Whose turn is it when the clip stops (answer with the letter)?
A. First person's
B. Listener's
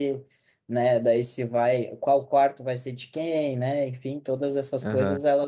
A